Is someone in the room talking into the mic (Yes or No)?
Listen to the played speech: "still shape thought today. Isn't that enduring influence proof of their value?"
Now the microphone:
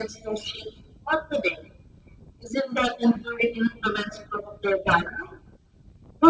No